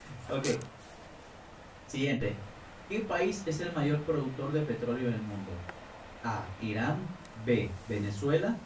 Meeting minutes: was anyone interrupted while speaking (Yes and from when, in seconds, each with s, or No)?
No